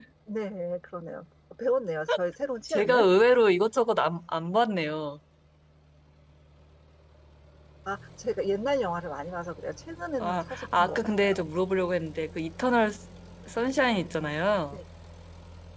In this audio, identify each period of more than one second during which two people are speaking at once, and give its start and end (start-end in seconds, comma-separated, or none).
10.2-11.4